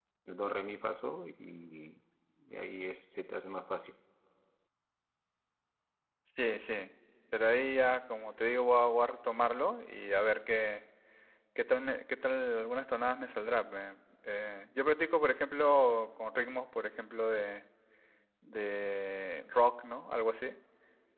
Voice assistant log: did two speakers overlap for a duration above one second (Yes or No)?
No